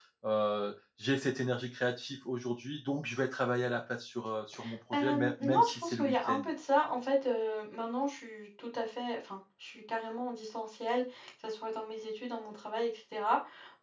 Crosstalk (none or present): present